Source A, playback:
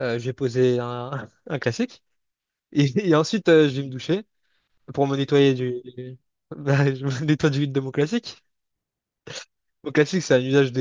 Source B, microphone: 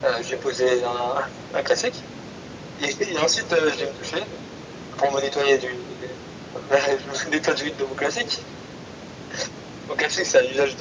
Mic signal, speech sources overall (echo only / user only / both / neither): echo only